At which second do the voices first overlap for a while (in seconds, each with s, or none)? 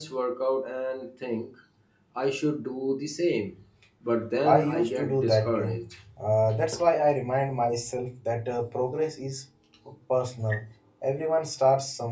4.4 s